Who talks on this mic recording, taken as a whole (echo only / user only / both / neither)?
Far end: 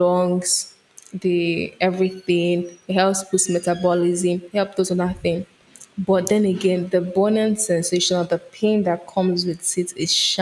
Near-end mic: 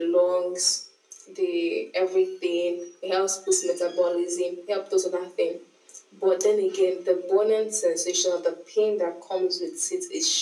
echo only